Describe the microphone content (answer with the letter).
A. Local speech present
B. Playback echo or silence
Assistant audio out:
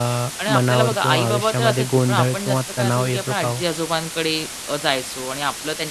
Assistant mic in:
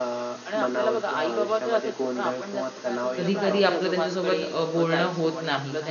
A